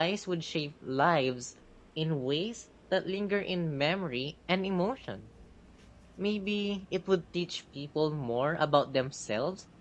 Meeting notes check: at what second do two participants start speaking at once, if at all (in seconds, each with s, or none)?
none